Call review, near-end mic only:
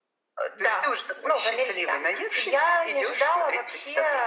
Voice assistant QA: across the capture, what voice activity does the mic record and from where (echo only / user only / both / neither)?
echo only